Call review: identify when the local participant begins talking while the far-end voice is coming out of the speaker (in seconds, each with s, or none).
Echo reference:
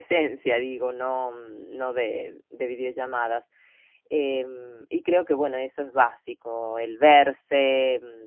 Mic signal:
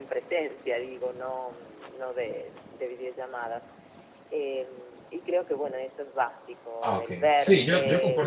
6.8 s